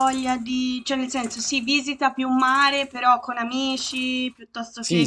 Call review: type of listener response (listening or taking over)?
taking over